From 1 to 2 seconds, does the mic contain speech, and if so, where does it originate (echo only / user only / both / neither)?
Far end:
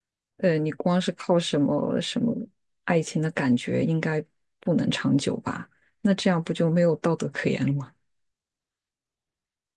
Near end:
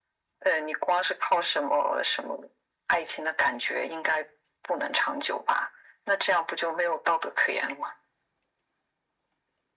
echo only